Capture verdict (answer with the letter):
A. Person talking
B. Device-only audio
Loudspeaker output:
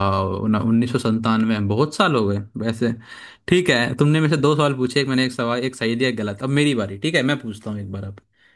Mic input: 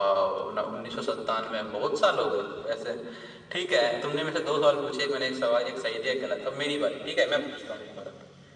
B